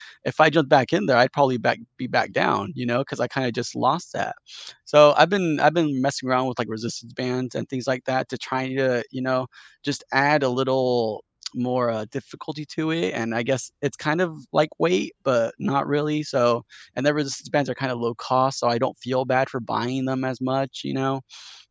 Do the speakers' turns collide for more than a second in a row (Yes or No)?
No